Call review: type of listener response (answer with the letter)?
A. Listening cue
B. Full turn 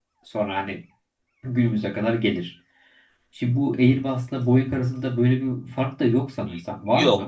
B